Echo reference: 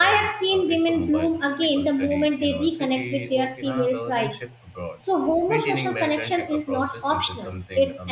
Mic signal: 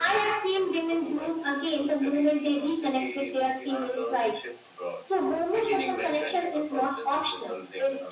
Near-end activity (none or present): none